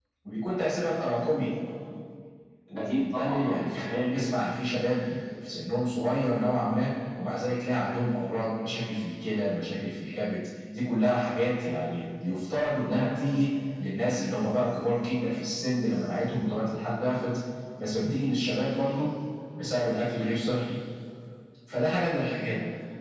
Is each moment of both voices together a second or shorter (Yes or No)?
No